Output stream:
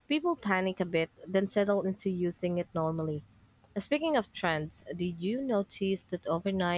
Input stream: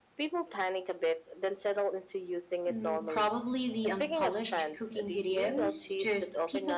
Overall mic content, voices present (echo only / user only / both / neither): both